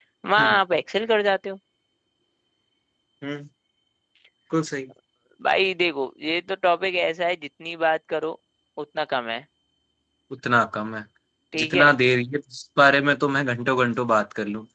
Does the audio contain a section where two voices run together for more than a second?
No

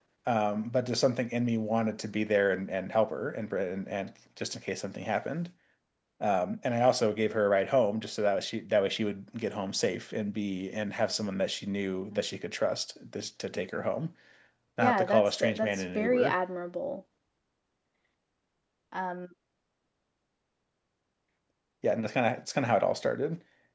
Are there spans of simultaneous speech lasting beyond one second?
Yes, from 14.8 s

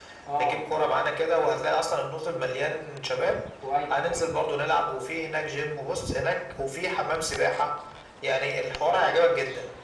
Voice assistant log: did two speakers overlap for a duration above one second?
No

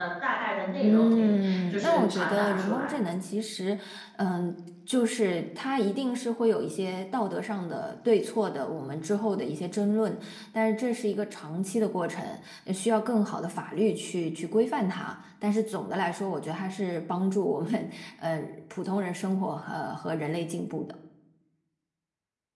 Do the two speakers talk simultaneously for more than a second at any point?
Yes, from 0.8 s

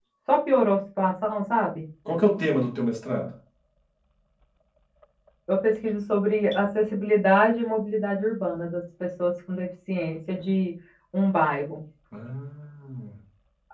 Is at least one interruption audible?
No

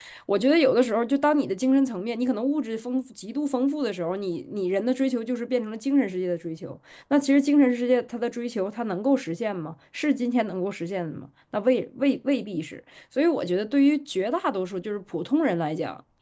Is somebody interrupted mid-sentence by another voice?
No

